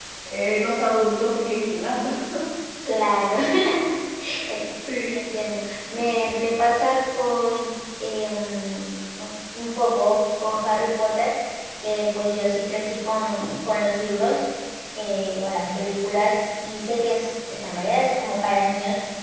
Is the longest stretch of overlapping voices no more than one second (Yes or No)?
Yes